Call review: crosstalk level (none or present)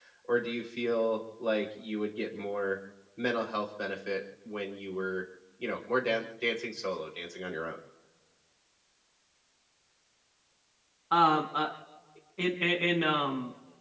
none